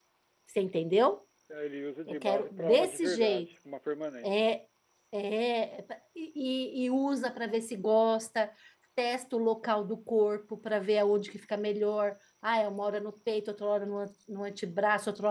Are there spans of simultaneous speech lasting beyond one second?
Yes, from 2.1 s

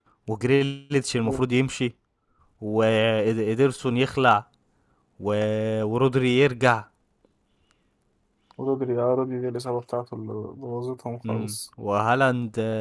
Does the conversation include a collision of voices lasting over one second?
No

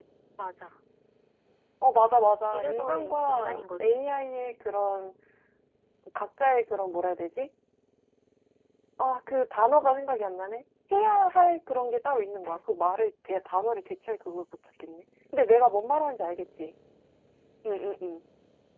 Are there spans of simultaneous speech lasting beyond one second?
Yes, from 2.5 s

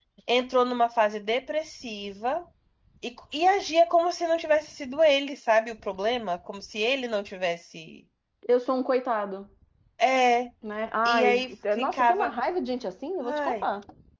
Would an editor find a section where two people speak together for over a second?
Yes, from 11.0 s

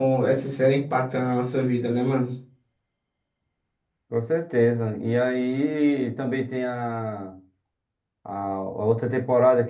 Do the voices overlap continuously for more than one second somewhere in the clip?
No

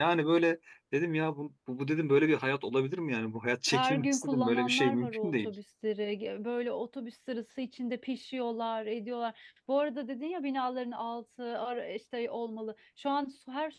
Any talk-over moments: Yes, from 3.7 s

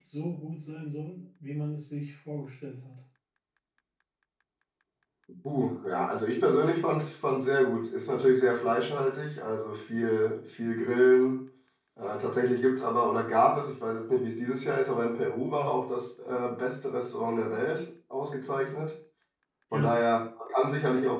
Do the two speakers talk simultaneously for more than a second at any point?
No

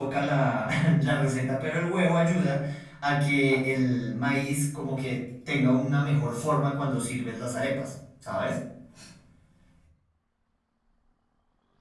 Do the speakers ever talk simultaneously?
No

